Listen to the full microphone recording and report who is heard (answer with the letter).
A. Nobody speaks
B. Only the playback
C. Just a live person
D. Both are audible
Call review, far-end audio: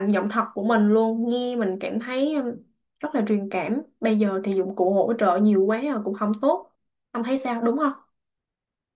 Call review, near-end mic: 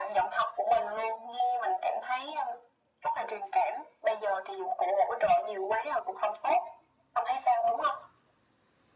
B